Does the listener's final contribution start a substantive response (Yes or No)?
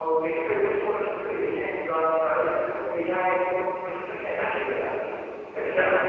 No